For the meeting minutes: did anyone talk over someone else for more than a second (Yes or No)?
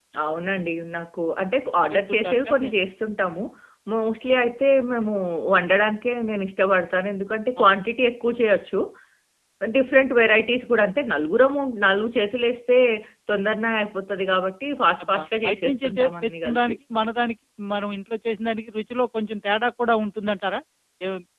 Yes